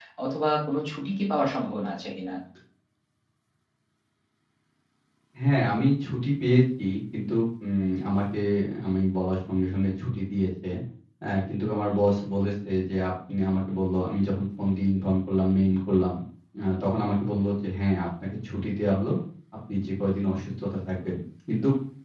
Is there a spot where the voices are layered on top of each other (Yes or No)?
No